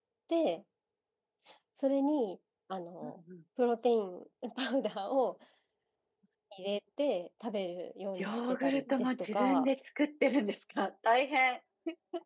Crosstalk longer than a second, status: present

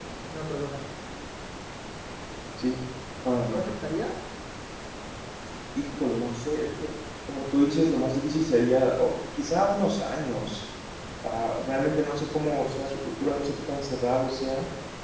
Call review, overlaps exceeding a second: none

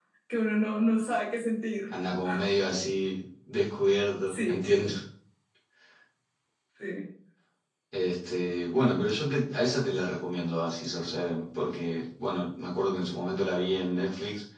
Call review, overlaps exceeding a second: none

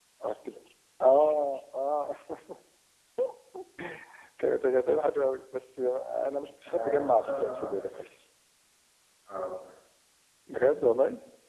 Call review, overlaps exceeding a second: present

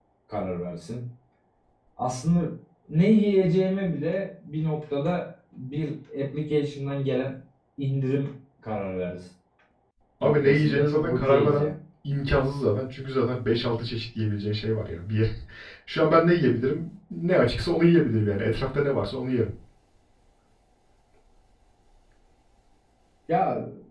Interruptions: present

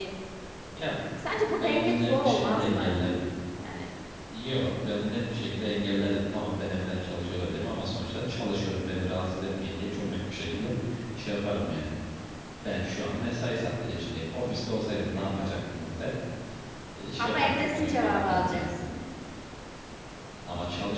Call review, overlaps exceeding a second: present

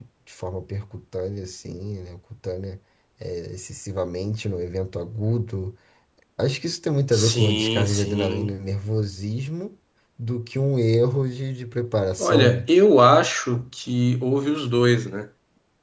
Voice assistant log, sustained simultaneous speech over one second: present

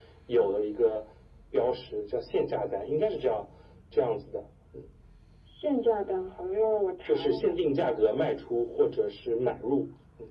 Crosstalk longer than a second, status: none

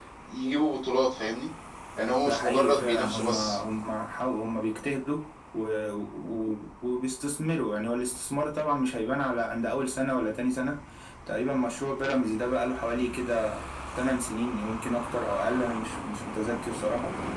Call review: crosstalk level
present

